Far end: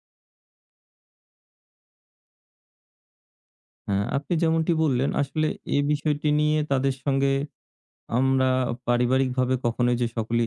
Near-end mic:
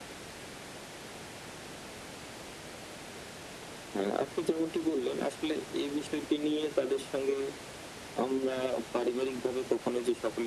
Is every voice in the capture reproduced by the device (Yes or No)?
Yes